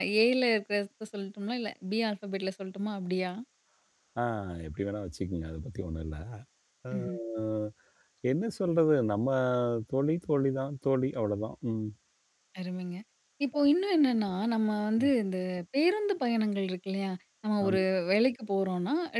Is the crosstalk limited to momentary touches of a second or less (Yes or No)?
Yes